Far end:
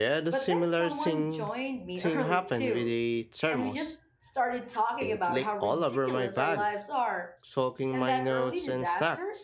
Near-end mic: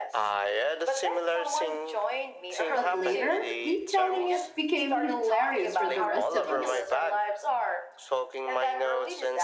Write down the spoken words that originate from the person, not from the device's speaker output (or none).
but later, retelling it became hilarious for the rest of us.